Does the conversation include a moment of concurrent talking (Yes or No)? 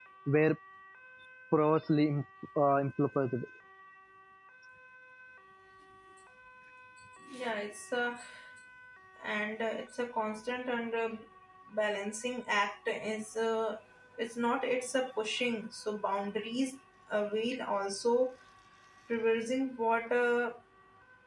No